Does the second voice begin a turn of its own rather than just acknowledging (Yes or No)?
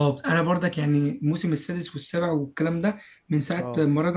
No